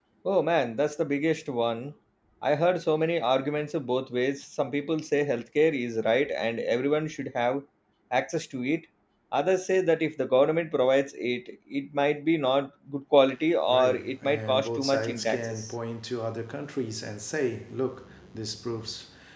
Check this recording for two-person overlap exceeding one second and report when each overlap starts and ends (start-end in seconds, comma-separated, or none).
13.7-15.7